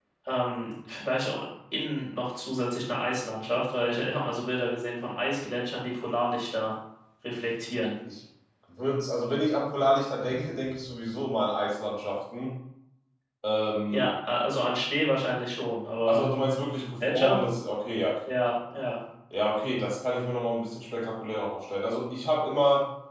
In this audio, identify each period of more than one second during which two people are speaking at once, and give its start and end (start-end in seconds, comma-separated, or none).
none